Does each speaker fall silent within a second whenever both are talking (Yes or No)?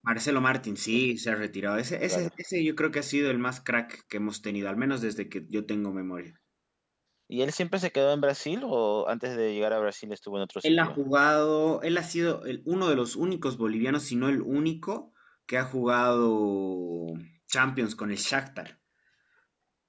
Yes